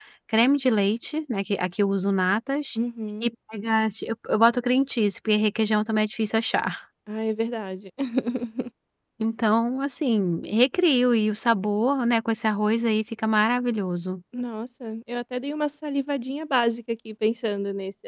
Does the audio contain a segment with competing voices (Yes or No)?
No